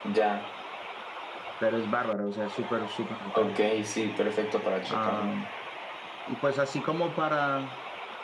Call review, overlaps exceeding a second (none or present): none